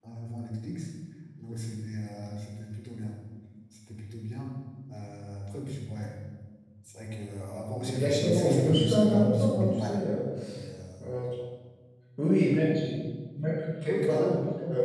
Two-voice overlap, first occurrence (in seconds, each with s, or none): 7.8 s